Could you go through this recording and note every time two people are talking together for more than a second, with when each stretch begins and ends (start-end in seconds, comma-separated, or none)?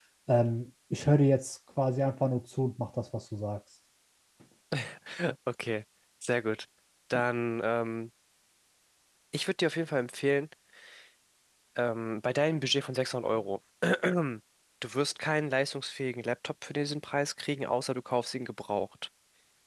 none